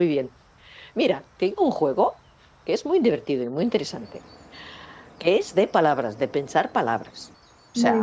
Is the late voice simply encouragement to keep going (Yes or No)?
Yes